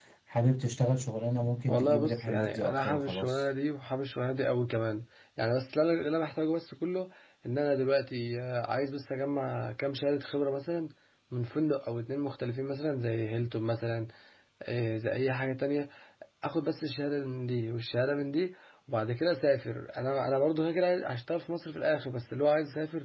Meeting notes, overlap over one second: present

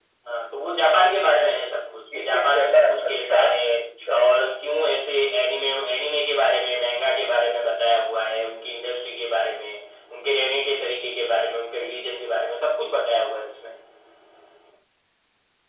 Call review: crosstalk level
present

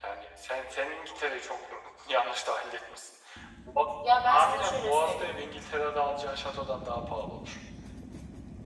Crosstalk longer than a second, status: present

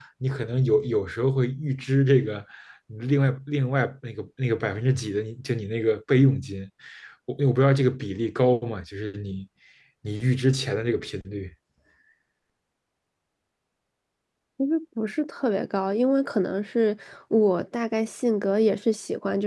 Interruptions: none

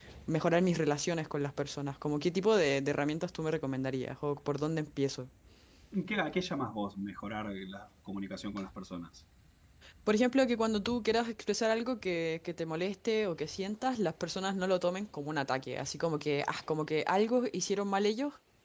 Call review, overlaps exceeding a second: none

